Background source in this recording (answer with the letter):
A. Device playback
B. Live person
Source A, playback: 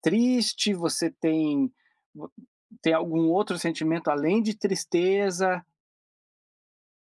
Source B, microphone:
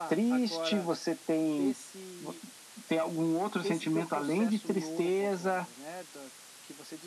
B